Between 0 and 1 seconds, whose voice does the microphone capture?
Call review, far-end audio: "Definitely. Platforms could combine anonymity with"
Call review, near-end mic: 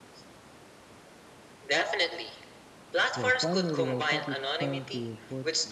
neither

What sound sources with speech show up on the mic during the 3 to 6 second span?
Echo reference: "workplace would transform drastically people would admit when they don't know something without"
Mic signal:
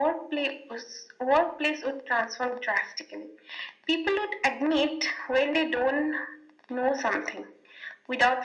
echo only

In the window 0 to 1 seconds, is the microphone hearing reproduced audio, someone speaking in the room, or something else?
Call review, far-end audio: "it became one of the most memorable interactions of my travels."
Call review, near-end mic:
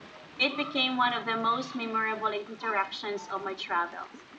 echo only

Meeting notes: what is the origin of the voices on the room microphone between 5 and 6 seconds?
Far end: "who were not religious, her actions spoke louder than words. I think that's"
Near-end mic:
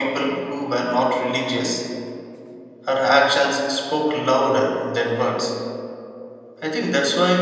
echo only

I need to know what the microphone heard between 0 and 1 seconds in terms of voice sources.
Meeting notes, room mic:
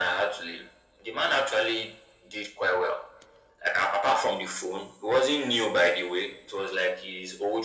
echo only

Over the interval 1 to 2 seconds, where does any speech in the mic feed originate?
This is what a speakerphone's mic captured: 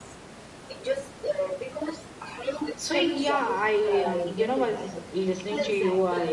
echo only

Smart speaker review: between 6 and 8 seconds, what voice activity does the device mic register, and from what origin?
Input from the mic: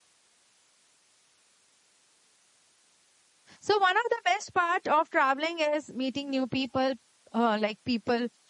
user only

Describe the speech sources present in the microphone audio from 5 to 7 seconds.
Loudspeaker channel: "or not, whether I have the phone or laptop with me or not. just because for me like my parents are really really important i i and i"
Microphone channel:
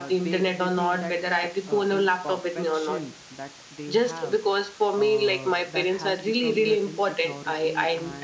both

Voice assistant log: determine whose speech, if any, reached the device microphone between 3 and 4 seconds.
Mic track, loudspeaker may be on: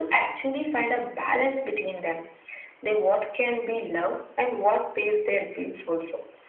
echo only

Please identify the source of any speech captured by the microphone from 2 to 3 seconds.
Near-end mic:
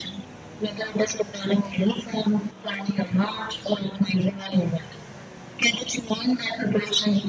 echo only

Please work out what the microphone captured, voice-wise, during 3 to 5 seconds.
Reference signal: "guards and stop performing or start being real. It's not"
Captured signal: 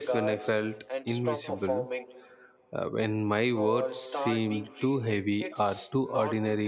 both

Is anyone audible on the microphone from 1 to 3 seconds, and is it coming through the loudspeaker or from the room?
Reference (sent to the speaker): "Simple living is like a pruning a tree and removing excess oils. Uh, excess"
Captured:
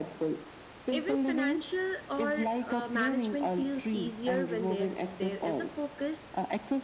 both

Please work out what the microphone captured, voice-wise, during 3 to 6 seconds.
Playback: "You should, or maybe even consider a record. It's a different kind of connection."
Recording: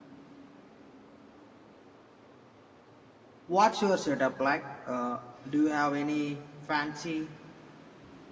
user only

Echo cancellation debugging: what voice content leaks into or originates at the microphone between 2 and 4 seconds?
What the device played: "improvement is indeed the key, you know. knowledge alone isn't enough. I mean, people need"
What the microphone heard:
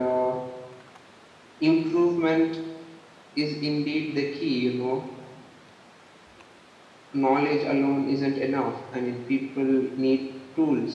echo only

